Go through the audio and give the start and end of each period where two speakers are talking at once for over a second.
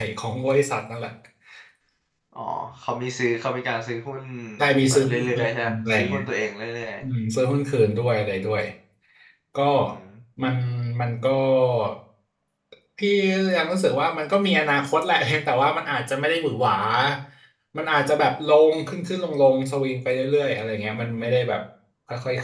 4.9-6.2

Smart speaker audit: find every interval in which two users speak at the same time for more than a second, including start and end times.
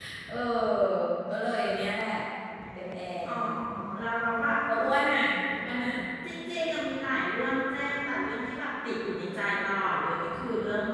none

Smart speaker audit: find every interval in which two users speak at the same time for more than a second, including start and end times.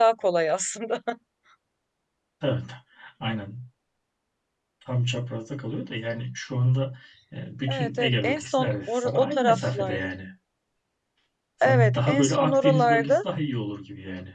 7.7-10.1, 11.6-13.2

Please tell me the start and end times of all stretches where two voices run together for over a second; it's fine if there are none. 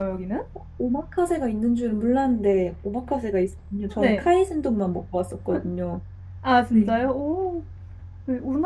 none

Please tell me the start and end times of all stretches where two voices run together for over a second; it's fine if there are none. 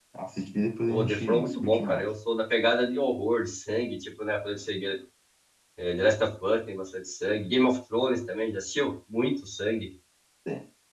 0.9-2.1

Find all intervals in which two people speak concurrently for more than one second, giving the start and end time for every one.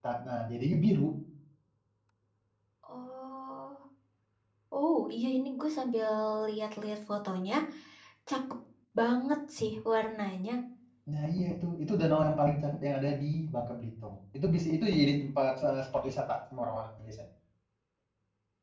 none

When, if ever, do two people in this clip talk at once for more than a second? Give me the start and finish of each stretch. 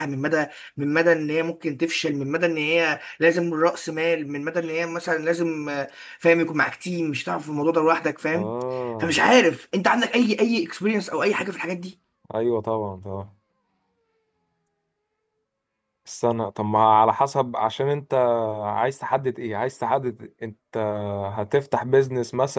none

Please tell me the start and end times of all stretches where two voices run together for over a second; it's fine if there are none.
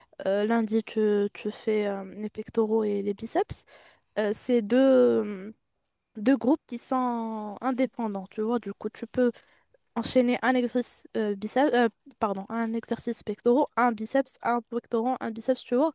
none

